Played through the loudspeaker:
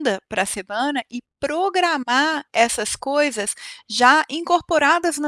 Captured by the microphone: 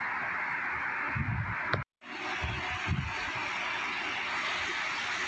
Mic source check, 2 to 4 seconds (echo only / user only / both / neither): neither